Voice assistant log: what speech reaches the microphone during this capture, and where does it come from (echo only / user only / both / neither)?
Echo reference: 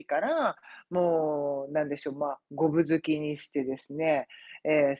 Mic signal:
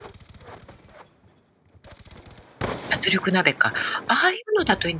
user only